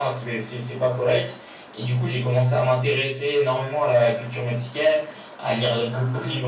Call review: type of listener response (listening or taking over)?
listening